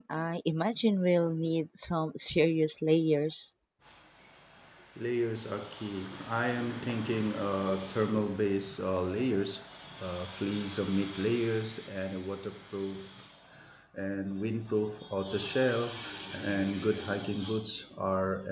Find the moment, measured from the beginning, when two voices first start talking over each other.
none

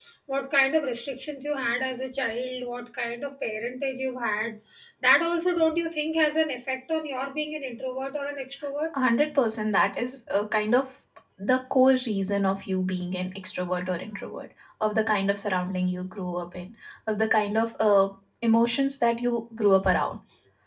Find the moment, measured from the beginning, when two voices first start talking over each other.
none

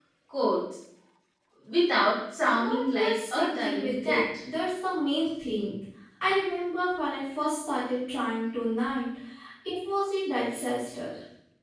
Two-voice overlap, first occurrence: 3 s

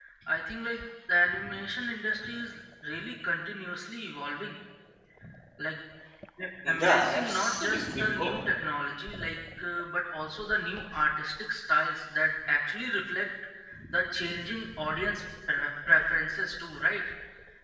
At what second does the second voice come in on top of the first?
7 s

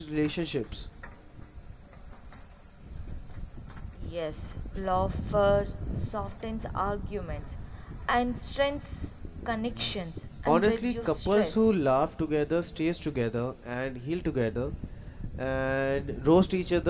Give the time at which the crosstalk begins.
10 s

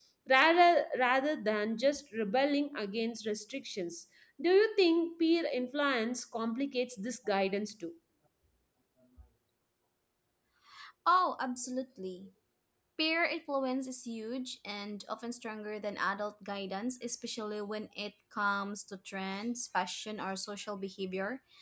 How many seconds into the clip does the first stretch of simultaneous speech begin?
none

